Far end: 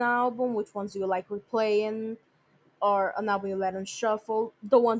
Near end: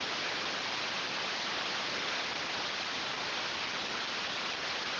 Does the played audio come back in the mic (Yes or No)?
No